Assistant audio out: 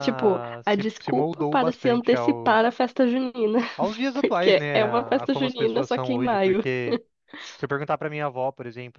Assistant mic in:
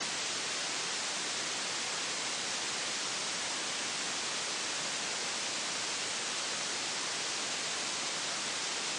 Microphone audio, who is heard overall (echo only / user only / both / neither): neither